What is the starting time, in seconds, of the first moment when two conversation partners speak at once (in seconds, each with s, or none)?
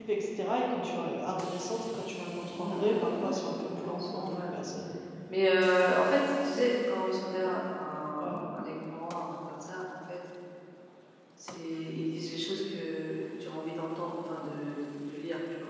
2.5 s